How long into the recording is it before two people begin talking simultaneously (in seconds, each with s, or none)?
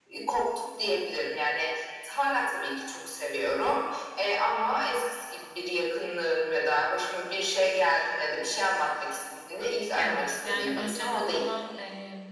9.9 s